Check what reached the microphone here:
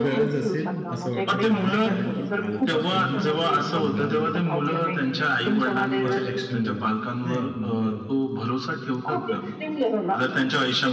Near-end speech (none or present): present